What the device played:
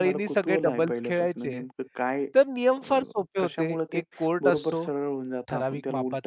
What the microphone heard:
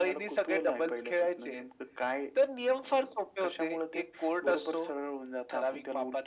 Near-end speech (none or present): none